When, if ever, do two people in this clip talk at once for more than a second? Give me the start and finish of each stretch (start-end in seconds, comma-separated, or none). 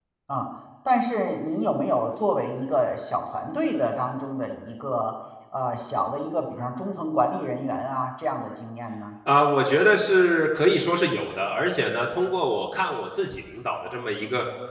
none